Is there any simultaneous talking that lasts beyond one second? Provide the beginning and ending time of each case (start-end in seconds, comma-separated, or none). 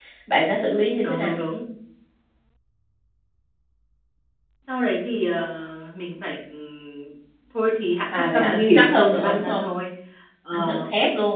8.3-9.6